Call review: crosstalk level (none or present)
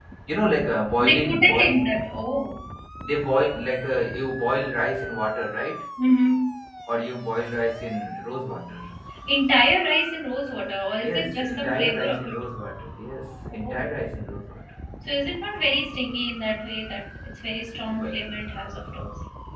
present